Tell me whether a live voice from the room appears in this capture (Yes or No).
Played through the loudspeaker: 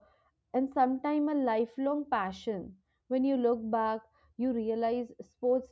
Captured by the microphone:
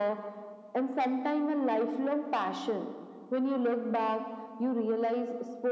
No